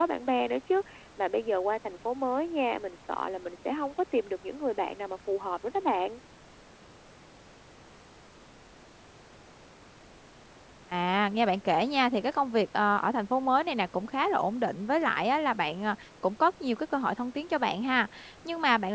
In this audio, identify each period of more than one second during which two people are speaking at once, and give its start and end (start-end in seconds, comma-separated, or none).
none